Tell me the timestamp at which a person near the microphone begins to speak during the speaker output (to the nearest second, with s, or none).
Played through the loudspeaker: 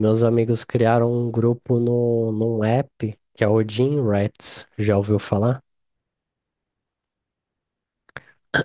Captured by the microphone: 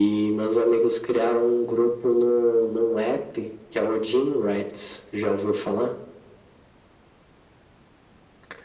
none